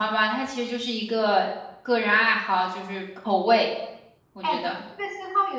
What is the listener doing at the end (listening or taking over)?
taking over